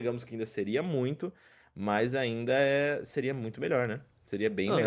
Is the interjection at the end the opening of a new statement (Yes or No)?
Yes